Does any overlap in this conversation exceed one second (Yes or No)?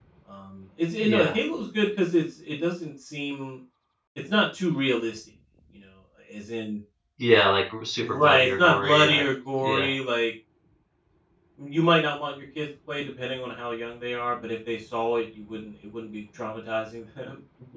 Yes